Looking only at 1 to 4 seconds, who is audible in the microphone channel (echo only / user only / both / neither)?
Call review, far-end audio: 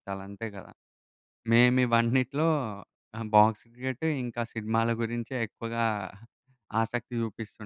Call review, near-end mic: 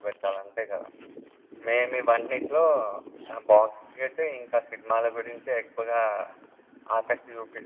echo only